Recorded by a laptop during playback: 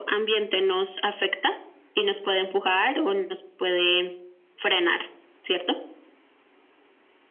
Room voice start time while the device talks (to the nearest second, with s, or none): none